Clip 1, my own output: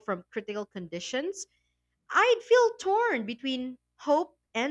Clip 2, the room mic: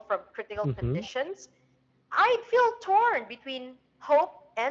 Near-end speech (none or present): present